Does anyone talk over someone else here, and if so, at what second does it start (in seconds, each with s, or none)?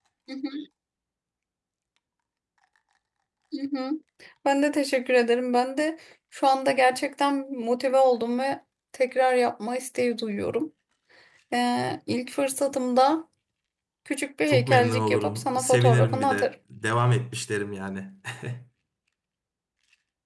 14.5 s